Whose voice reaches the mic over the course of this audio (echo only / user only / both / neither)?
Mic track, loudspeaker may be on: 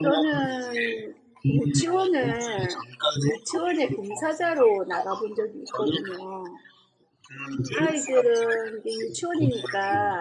both